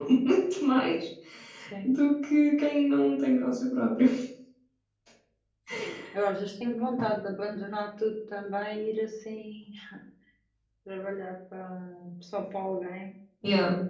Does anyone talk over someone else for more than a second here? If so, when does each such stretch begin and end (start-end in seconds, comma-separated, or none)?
none